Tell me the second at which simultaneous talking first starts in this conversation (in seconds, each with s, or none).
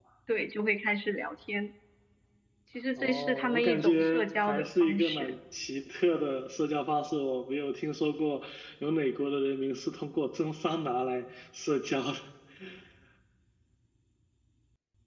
3.0 s